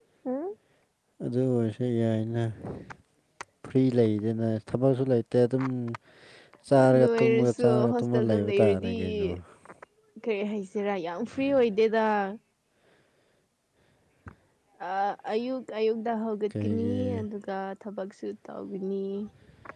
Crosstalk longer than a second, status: present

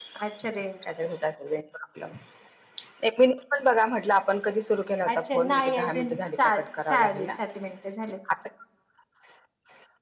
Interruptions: present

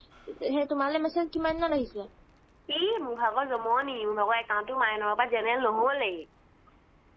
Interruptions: none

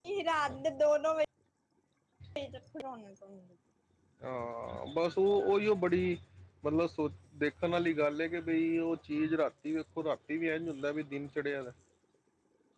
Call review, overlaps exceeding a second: none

